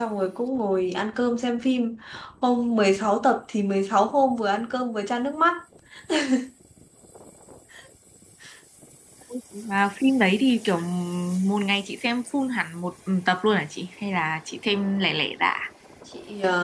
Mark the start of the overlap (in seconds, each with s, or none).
none